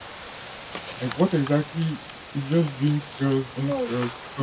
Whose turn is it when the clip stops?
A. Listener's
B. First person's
A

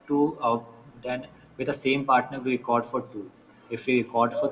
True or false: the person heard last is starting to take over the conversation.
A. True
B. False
A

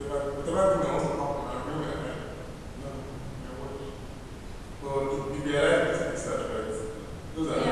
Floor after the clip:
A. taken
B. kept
A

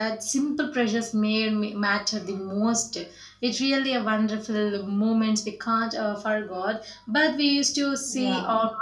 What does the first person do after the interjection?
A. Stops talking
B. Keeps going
B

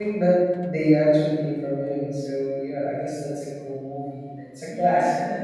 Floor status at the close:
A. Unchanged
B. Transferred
B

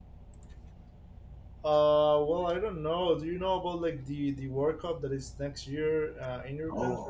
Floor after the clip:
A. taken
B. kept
A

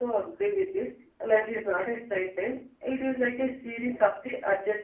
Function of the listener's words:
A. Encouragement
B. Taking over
A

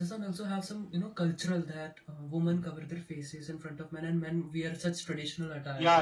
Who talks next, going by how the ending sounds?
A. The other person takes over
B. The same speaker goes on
A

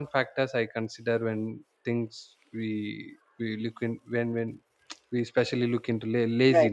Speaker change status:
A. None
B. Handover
A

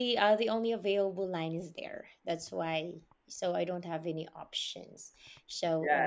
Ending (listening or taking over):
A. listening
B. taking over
B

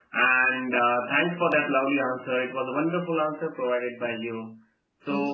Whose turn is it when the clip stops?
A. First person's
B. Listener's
A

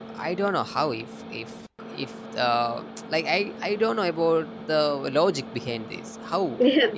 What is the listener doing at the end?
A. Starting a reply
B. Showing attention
A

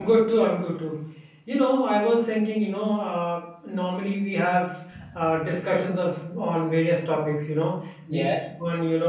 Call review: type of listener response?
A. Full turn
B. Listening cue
B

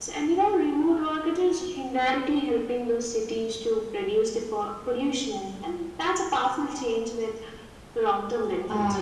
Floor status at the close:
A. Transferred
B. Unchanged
A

